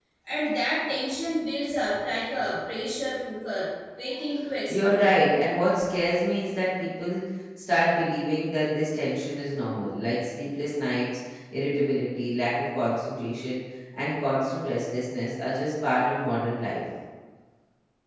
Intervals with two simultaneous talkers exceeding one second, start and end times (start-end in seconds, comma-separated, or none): none